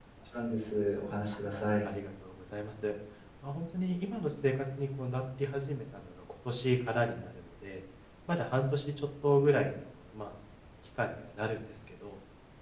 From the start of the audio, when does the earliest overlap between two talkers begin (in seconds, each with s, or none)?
none